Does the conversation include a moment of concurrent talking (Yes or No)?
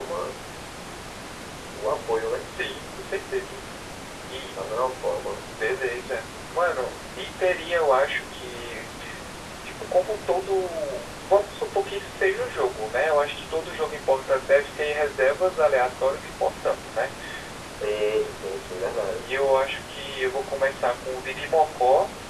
No